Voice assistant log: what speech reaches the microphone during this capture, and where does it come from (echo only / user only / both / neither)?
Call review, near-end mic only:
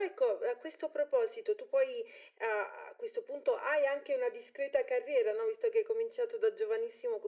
echo only